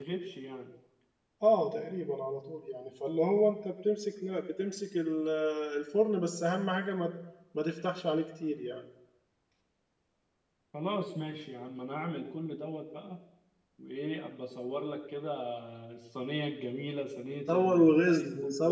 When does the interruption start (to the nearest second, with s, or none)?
17 s